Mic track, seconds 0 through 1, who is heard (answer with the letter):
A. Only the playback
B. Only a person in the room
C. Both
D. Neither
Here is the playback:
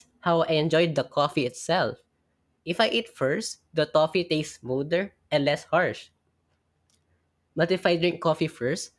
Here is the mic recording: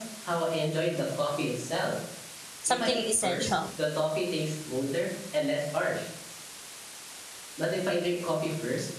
A